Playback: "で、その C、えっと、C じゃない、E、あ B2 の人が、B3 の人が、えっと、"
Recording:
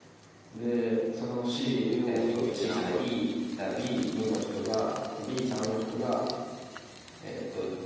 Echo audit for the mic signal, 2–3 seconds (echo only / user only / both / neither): both